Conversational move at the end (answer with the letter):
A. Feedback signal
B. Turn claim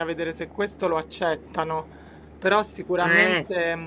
A